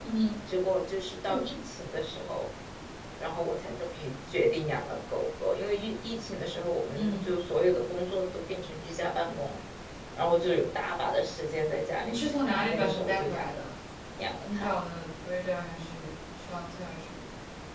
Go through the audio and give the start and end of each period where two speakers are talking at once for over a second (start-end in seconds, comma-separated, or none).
12.0-13.7